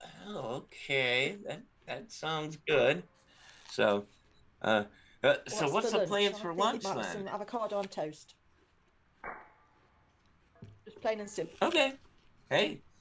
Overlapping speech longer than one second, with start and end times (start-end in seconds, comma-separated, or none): 5.5-7.2